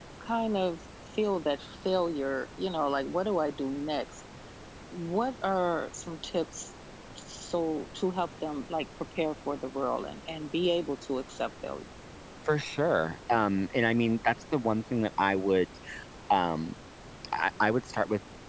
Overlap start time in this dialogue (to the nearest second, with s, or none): none